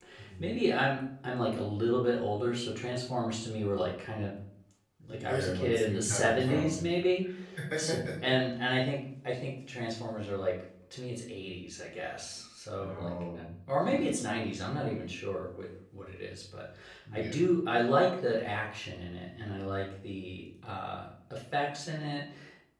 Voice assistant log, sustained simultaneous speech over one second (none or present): present